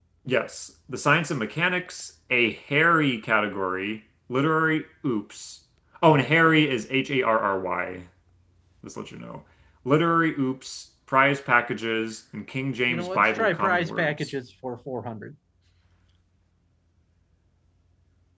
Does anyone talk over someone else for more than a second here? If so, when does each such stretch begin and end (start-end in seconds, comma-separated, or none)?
12.9-14.3